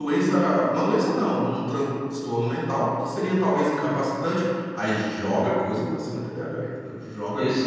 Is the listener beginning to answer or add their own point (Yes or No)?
Yes